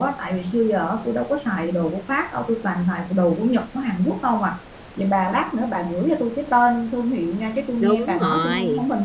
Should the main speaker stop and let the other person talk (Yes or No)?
Yes